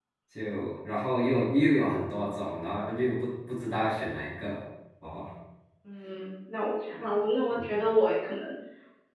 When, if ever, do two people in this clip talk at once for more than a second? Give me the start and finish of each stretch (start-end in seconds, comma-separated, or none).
none